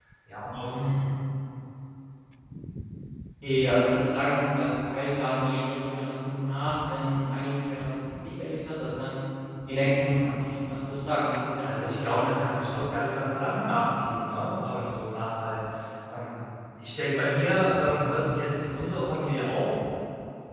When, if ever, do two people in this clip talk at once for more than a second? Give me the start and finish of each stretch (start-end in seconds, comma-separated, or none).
11.6-13.6